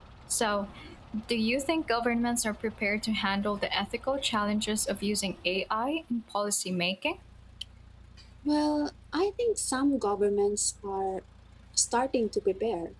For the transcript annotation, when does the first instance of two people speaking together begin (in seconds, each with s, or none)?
none